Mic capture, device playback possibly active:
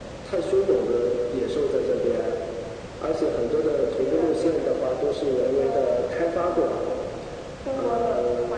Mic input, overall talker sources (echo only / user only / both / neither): echo only